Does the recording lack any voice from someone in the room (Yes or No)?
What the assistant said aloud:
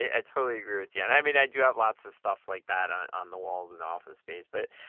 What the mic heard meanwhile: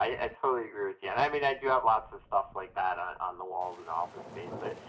Yes